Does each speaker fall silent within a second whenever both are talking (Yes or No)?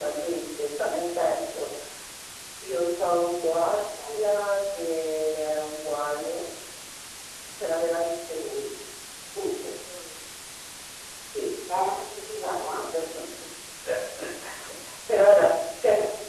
Yes